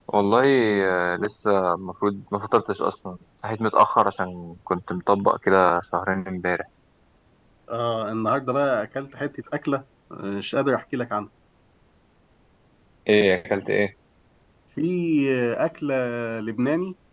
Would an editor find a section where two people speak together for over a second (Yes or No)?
No